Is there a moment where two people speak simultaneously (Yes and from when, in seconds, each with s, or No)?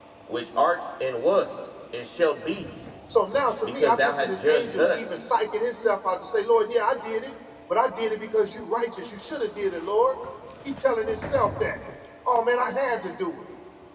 Yes, from 3.6 s